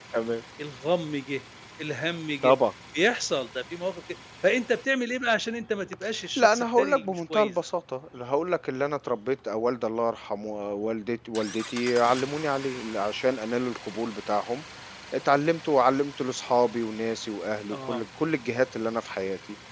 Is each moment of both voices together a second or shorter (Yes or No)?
No